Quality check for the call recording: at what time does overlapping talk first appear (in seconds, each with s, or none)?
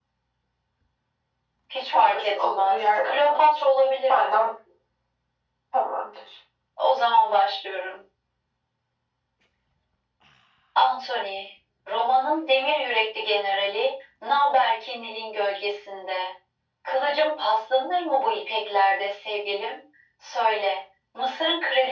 1.9 s